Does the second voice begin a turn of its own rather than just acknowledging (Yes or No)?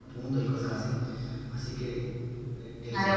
Yes